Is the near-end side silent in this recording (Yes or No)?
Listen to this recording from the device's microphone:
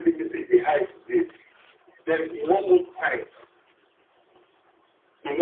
Yes